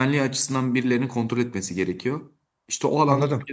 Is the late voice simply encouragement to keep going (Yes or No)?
Yes